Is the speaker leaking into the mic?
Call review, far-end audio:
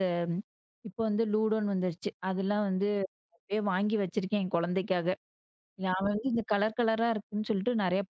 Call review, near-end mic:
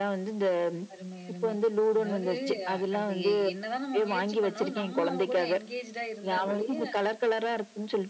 Yes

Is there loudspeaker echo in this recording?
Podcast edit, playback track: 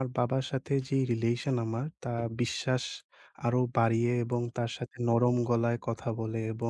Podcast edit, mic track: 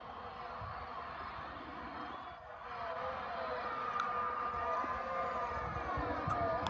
No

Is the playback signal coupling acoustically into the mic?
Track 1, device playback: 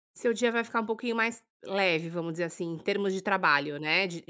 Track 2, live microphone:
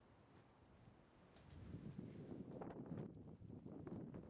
No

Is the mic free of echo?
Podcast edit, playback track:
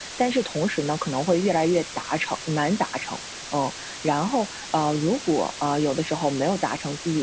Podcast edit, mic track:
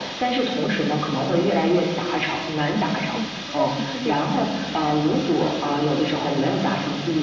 No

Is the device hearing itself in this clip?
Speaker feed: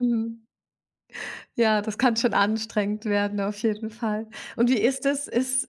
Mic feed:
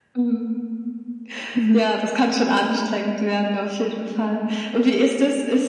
Yes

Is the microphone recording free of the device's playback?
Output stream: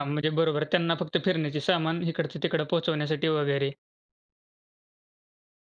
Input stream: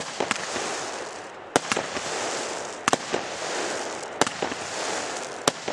Yes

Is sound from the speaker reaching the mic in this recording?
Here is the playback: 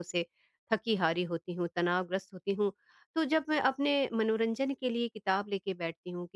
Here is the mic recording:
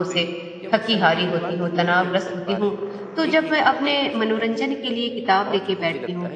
Yes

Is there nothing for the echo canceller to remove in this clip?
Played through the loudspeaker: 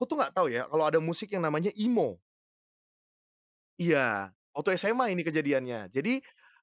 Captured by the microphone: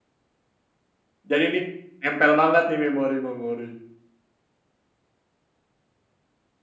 Yes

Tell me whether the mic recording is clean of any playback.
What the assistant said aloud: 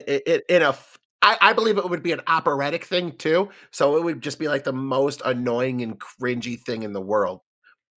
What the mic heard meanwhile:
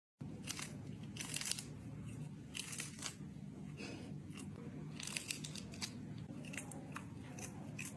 Yes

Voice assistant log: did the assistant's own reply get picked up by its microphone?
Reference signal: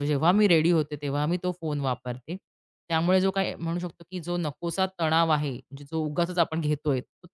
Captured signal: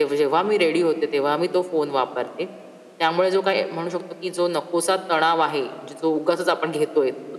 Yes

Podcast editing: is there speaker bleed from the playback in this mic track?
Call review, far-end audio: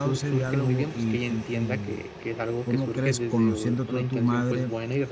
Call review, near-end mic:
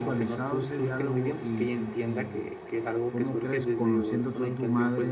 Yes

